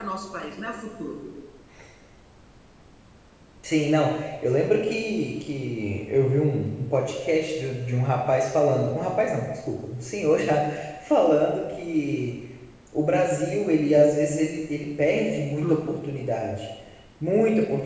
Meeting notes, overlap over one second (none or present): none